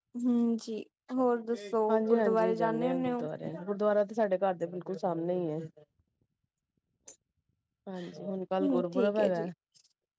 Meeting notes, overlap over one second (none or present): present